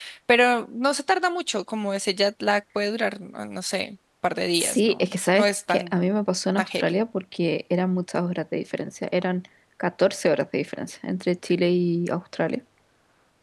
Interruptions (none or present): present